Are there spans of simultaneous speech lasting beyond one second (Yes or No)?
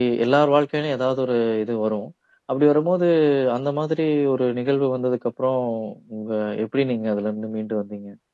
No